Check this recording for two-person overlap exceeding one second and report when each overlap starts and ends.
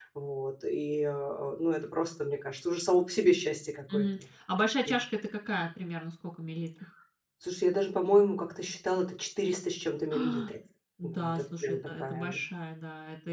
11.0-12.4

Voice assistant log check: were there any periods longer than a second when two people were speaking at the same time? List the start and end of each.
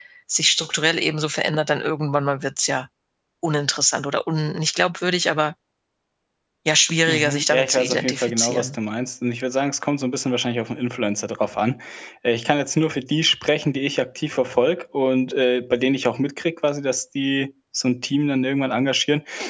7.1-8.8

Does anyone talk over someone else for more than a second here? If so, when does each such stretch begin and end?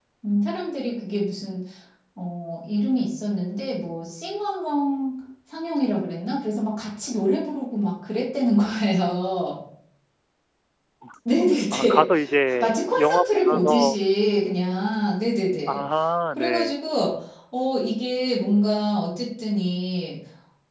12.6-14.0

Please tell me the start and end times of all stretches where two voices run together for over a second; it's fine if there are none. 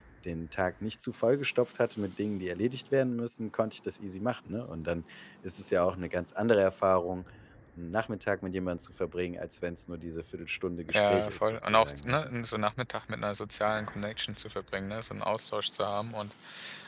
10.9-12.2

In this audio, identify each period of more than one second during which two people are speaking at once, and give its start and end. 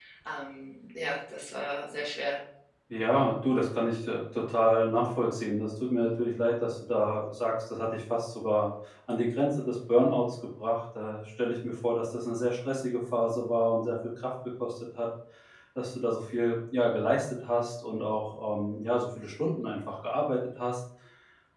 none

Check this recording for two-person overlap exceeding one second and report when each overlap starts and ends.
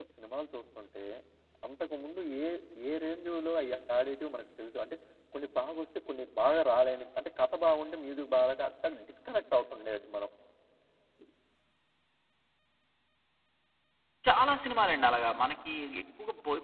none

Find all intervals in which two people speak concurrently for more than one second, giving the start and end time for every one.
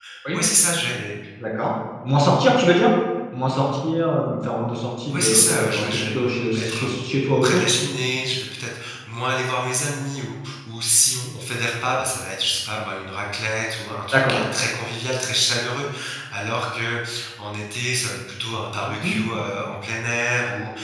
5.1-7.0

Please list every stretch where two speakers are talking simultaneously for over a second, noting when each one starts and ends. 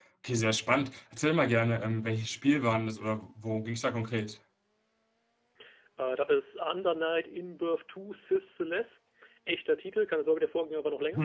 none

